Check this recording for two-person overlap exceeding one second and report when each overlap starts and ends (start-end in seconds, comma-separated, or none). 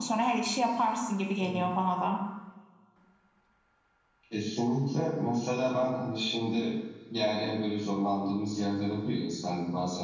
none